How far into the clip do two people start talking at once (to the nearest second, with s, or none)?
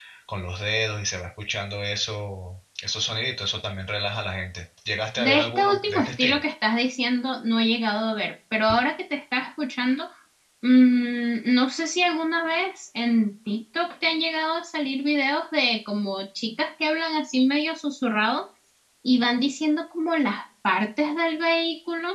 5 s